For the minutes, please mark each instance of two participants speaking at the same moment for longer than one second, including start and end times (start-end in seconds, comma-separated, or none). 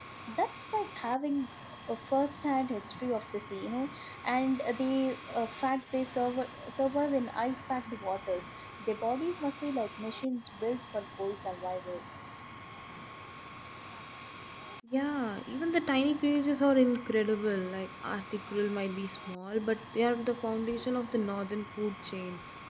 none